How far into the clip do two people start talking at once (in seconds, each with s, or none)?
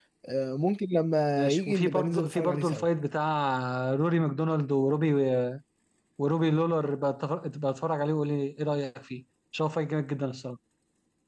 1.4 s